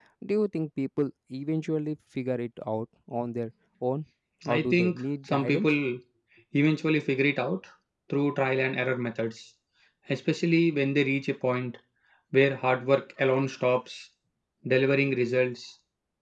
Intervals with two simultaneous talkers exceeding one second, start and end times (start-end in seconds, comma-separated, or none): 4.5-5.7